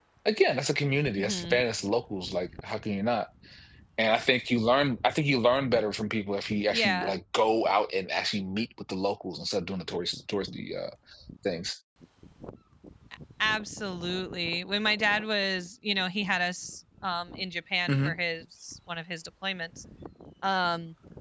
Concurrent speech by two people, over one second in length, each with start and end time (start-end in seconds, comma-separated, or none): none